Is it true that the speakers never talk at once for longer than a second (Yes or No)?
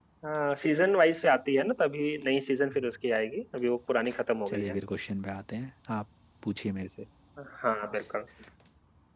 Yes